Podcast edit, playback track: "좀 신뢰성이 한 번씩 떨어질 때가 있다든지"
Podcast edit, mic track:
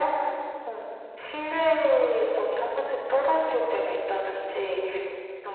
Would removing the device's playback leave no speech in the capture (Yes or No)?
Yes